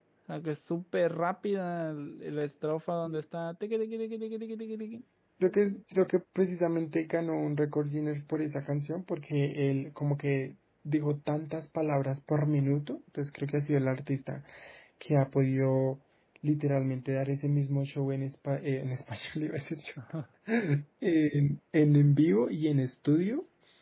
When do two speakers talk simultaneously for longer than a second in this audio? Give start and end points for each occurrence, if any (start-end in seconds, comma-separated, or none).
none